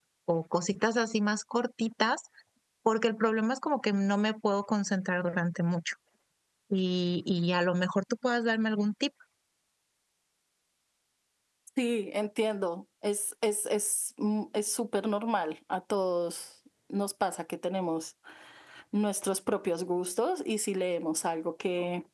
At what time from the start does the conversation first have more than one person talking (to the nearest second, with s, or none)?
none